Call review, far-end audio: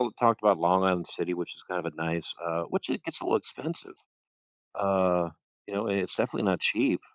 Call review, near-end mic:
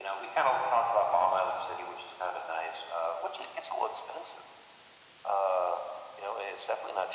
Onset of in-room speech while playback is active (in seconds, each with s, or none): none